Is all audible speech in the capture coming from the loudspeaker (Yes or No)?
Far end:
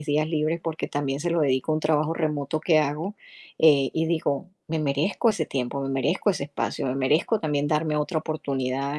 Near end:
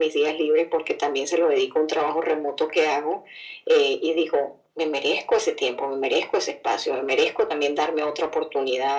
Yes